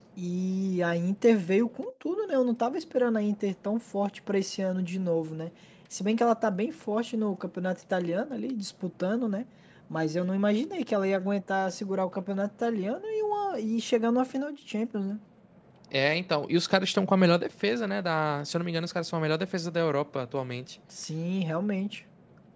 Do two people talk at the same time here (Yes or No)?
No